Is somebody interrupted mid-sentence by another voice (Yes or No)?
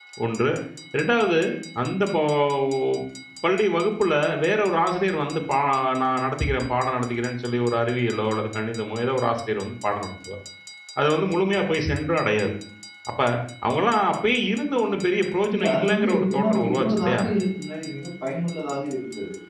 Yes